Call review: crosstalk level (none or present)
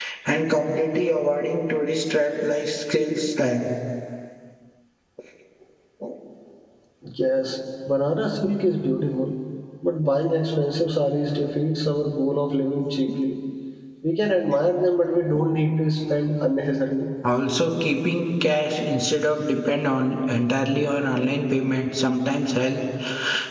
none